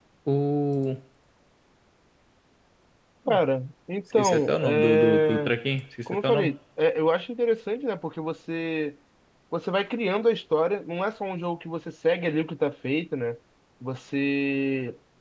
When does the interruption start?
4.1 s

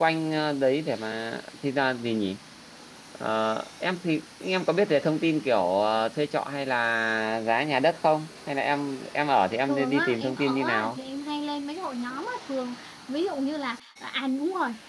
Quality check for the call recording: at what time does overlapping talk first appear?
9.7 s

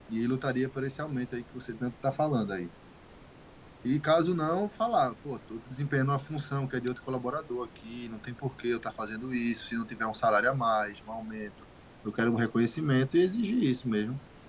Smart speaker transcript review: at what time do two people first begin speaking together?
none

